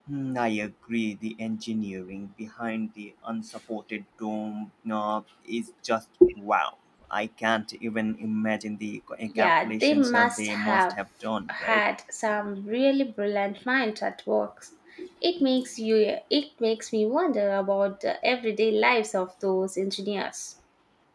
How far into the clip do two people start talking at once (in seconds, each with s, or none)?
9.3 s